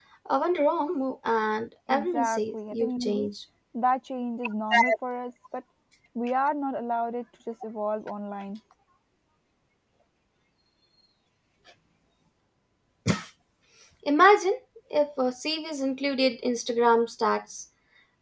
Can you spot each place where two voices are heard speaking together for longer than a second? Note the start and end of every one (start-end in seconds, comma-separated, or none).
1.9-3.3